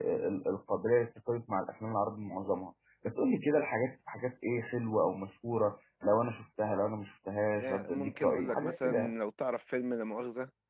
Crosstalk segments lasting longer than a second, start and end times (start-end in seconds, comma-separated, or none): 7.6-9.1